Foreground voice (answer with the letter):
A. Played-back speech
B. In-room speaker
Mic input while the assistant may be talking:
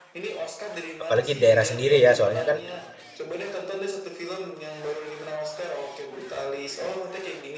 B